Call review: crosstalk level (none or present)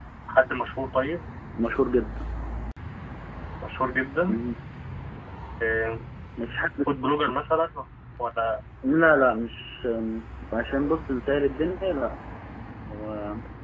none